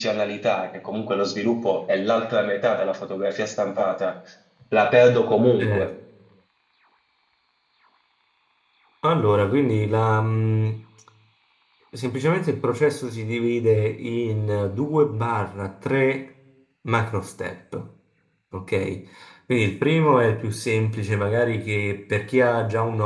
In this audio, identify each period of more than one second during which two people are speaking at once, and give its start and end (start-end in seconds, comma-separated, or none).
none